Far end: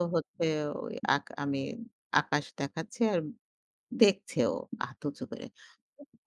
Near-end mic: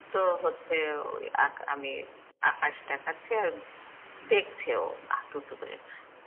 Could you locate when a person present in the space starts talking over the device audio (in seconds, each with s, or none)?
none